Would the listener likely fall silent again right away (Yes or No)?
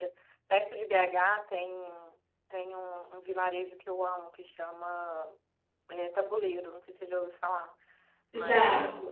Yes